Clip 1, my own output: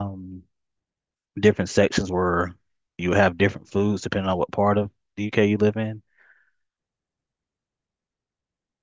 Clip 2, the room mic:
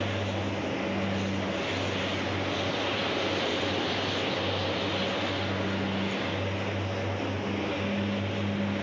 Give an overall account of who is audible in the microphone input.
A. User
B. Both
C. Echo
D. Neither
D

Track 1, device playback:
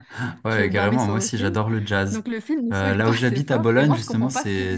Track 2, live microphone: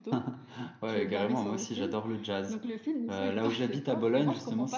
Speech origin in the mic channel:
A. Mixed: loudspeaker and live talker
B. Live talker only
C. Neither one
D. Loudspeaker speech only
D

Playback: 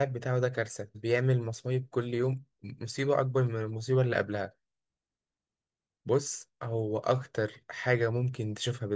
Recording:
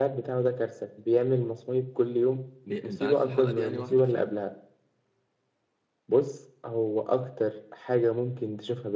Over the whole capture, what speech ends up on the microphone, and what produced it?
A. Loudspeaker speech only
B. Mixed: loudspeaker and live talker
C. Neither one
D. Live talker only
B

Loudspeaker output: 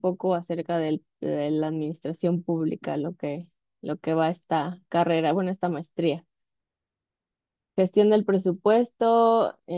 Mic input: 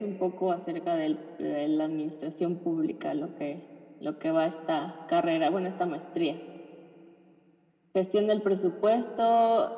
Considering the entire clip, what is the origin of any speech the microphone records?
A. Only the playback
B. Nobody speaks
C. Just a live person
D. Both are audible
A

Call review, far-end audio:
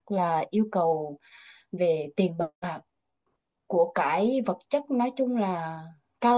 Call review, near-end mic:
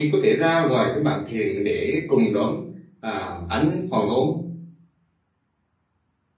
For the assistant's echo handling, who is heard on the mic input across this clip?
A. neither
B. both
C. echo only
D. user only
D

